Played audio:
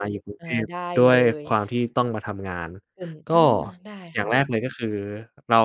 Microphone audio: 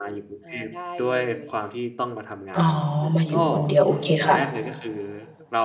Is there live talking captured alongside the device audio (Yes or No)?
Yes